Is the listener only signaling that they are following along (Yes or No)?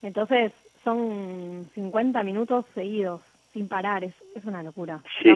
No